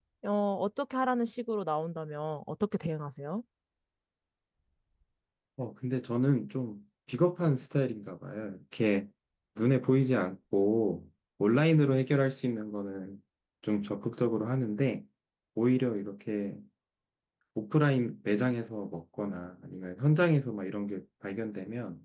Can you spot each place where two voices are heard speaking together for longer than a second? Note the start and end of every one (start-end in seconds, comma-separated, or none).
none